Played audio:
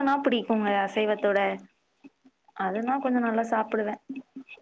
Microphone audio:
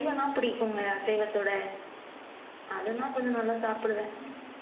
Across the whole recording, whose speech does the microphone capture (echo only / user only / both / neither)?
echo only